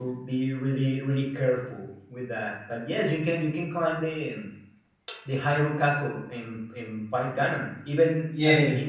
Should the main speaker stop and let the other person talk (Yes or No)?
Yes